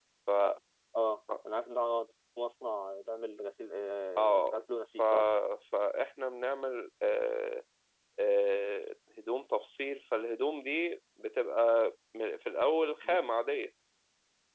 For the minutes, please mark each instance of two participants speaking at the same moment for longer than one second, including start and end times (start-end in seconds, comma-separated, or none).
none